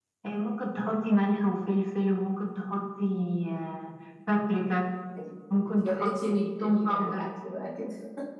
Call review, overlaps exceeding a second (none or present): present